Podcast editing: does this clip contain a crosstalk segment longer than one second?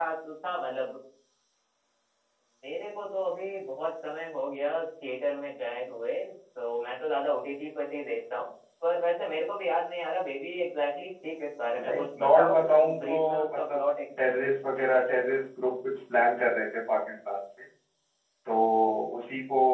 Yes, from 11.7 s

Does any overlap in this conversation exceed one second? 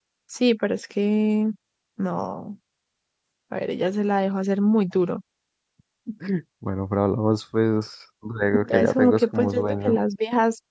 Yes, from 8.7 s

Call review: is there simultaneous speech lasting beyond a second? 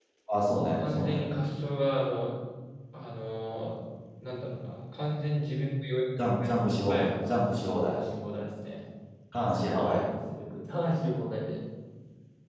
No

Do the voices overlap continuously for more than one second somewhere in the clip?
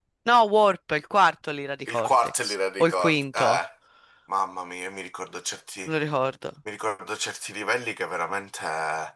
Yes, from 1.9 s

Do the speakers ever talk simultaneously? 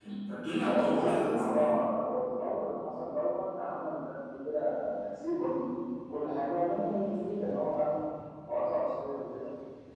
Yes, from 0.6 s

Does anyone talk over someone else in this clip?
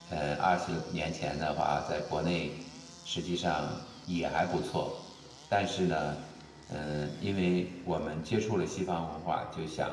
No

